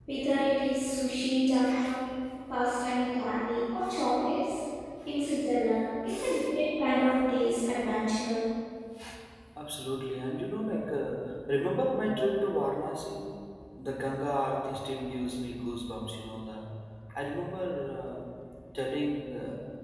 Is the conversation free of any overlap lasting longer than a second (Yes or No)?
Yes